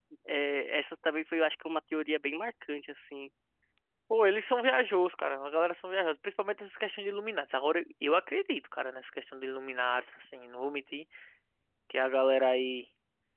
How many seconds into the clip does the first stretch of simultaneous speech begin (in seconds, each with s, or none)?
none